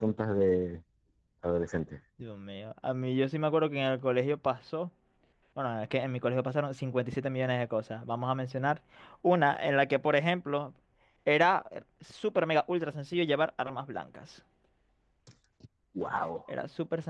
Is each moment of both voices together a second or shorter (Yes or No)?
Yes